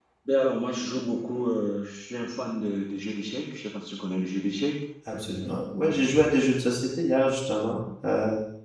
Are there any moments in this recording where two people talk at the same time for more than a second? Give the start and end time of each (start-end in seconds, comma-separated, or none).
none